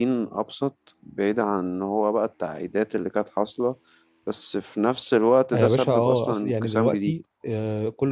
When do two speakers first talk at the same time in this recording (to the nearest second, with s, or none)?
6 s